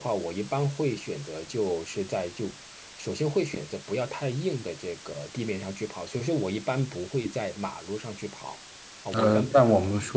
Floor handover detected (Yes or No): Yes